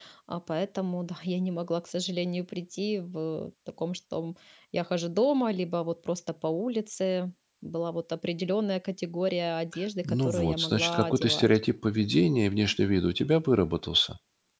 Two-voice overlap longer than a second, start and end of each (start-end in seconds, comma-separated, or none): 10.0-11.5